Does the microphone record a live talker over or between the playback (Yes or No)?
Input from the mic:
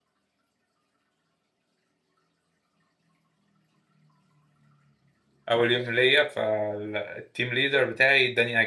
Yes